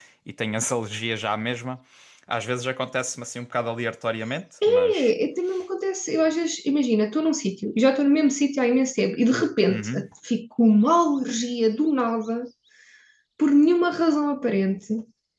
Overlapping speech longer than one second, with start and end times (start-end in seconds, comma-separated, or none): none